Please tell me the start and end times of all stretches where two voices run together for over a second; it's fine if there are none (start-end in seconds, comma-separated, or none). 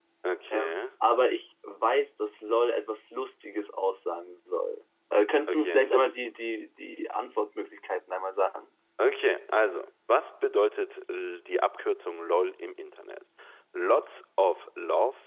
none